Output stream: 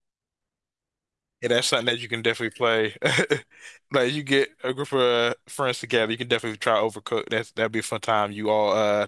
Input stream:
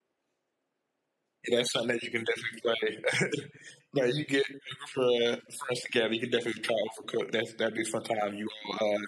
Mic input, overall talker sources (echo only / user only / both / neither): echo only